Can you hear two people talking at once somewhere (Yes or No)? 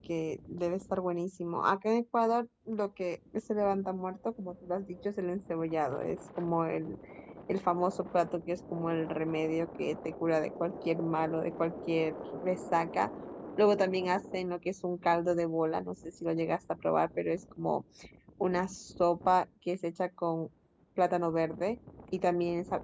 No